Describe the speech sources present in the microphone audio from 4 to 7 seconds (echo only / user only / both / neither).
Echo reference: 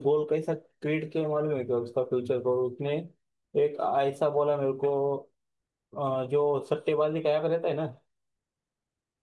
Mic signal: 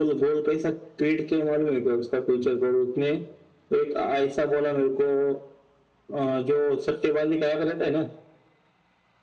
echo only